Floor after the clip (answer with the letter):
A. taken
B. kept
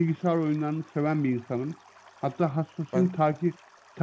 B